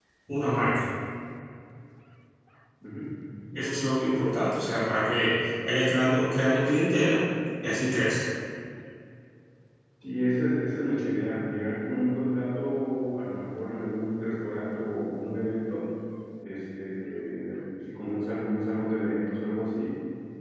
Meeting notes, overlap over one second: none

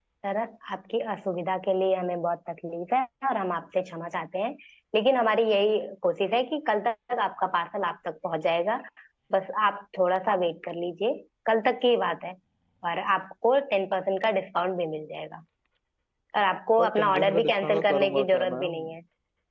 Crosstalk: present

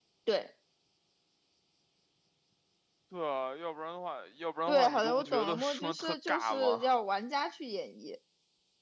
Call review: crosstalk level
present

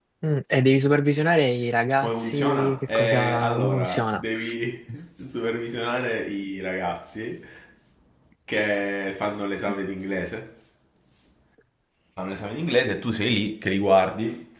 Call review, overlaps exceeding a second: present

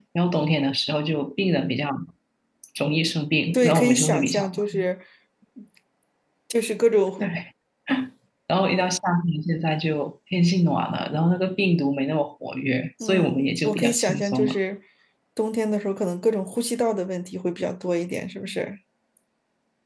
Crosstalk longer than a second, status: present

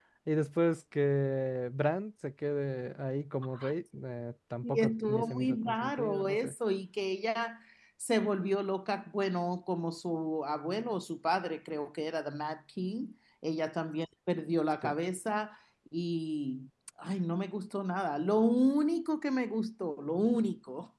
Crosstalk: present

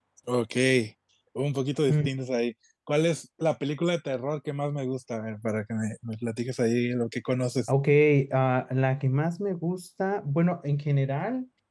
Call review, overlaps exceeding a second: none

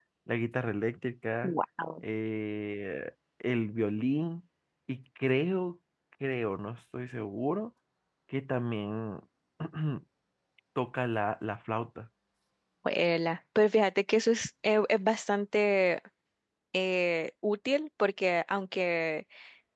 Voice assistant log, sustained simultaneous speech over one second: none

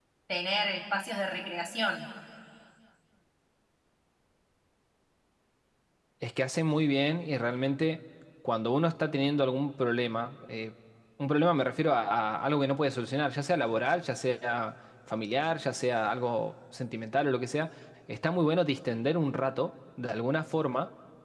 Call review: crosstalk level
none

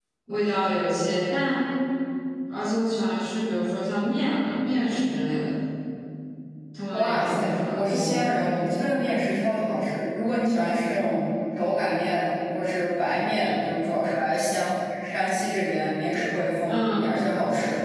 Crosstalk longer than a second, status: present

